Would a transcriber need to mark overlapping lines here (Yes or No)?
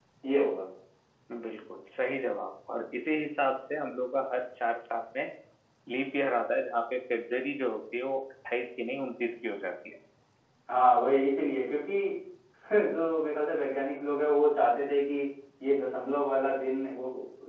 No